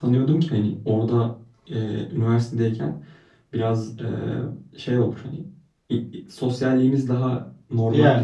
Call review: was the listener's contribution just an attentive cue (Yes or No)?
Yes